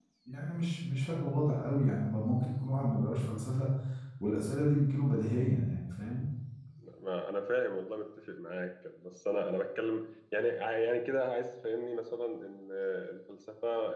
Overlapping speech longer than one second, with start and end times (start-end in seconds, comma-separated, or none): none